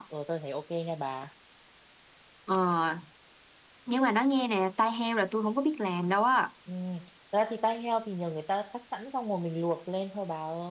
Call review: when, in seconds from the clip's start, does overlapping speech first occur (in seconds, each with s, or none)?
none